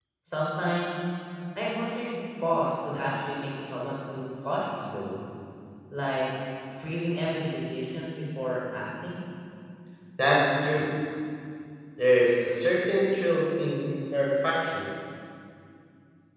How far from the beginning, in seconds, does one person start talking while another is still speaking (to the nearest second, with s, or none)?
none